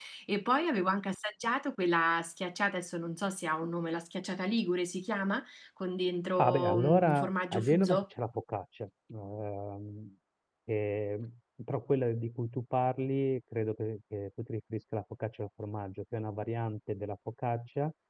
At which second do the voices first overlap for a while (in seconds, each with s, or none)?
6.4 s